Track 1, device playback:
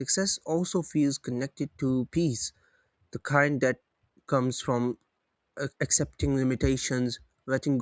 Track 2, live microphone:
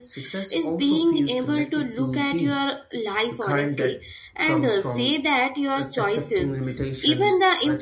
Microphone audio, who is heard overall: both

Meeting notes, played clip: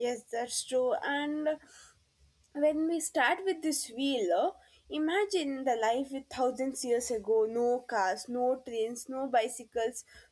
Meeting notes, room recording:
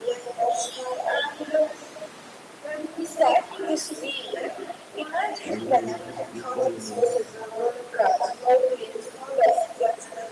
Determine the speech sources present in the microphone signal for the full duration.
both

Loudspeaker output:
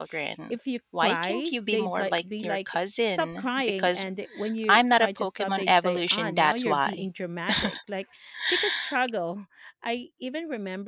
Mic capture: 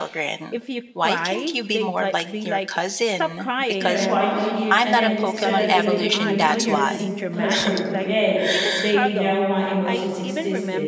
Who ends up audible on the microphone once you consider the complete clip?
both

